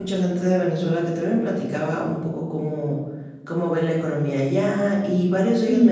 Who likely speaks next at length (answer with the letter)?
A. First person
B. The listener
A